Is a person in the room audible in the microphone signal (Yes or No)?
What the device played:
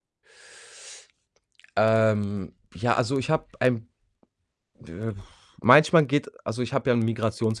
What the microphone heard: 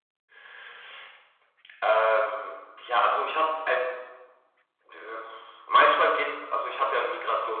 No